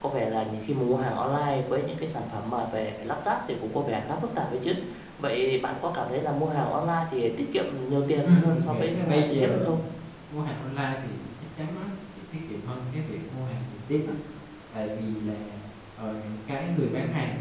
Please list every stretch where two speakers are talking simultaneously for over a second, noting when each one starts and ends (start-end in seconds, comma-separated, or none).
8.2-9.8